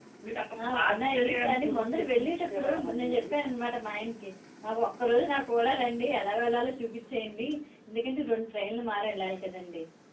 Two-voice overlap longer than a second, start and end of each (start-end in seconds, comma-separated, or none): 0.7-3.2